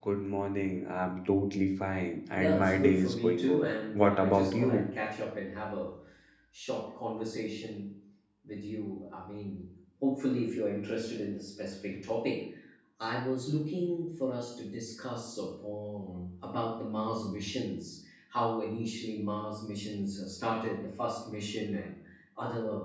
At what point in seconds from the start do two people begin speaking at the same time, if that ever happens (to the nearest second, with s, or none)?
2 s